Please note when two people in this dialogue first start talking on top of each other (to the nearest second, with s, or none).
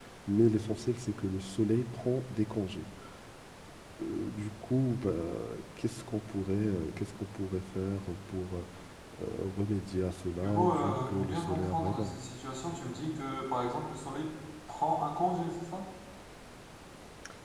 10 s